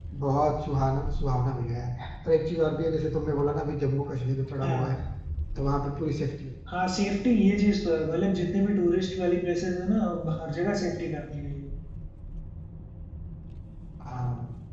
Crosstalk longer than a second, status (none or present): none